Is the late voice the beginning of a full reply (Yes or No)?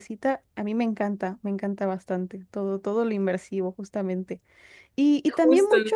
No